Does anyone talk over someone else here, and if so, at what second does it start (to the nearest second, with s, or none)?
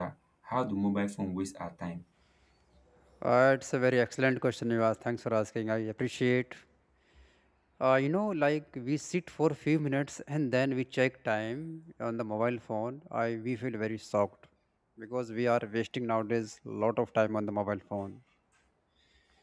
none